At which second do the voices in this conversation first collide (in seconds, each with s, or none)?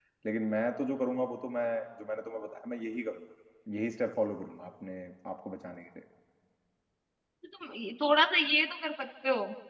none